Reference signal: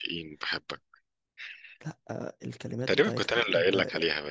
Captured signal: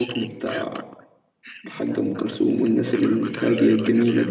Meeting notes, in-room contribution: present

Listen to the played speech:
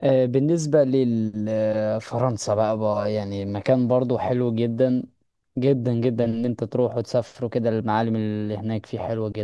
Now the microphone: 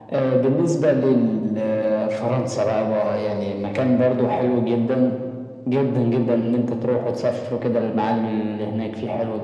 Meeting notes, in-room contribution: none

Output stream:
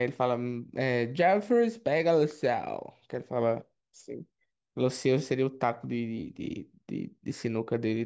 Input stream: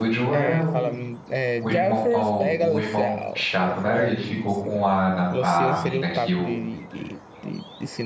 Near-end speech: present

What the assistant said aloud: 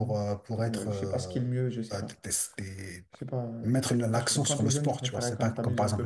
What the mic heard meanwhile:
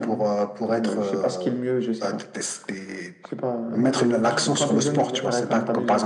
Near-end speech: present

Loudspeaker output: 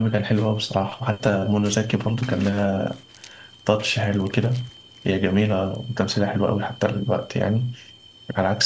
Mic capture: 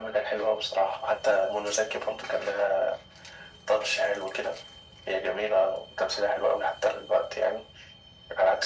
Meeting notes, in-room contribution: none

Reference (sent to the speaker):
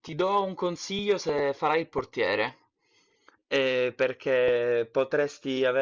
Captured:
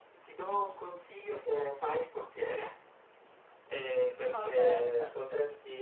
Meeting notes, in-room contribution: present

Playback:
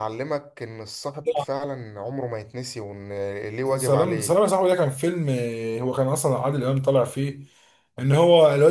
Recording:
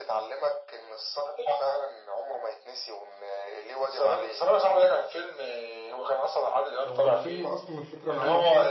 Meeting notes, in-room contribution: present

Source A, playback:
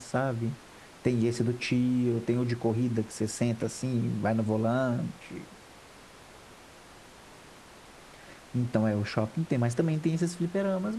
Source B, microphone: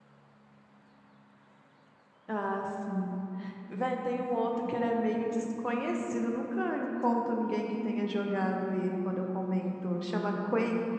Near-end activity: present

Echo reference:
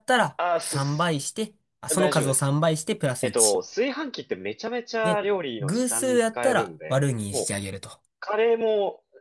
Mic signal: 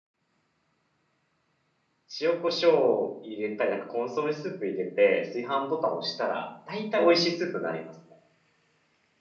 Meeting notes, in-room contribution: present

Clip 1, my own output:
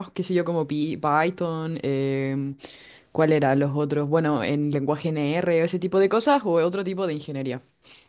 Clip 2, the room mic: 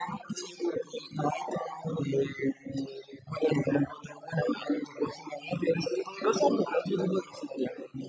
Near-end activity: none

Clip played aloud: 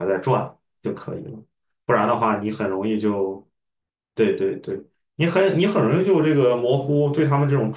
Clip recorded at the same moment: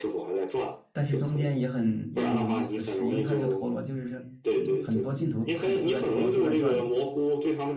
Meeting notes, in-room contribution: present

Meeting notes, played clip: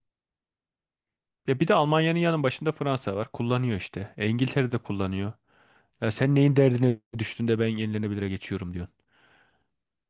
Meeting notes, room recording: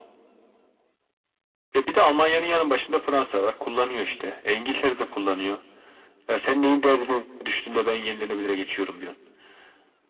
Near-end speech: none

